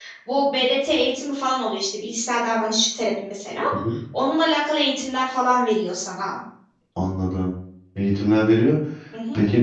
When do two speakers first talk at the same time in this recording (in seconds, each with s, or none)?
none